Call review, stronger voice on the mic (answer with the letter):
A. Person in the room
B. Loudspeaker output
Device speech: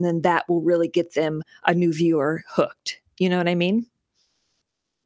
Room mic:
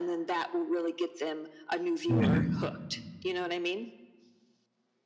A